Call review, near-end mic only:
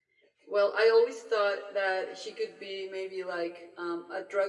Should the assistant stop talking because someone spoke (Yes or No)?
No